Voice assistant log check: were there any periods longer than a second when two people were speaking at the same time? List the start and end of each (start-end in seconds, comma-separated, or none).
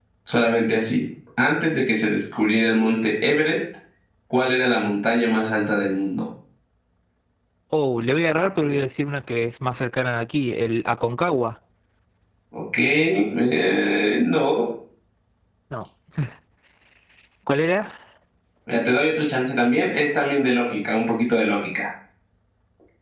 none